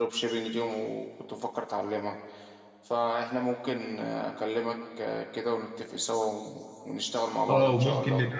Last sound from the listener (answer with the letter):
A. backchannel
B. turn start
B